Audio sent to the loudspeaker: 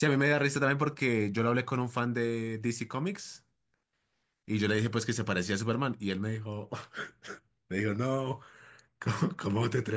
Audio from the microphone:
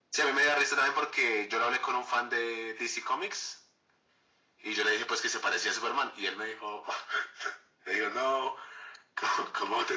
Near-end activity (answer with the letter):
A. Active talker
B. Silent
B